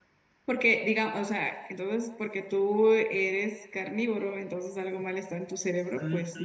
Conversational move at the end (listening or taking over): taking over